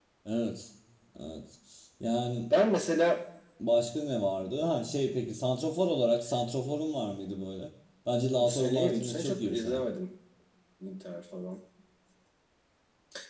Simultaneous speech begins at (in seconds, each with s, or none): 8.4 s